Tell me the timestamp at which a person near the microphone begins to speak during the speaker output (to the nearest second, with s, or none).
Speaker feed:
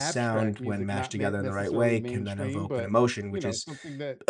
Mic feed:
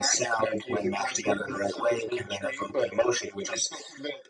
none